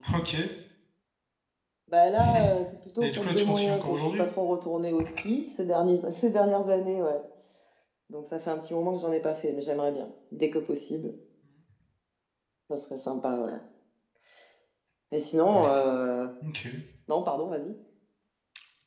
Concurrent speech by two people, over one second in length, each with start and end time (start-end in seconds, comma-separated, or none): 3.0-4.2